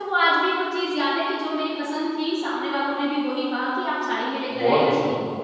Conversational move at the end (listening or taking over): taking over